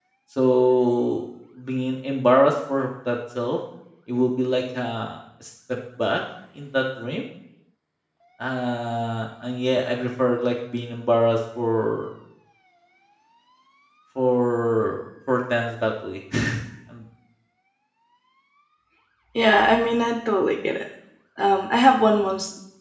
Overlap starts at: none

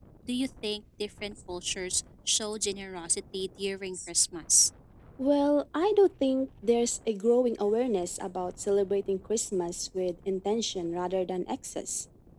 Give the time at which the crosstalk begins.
none

